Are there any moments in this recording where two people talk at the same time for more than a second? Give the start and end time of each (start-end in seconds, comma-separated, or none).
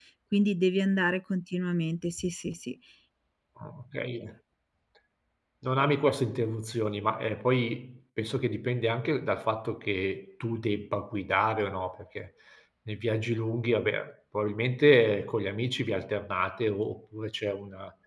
none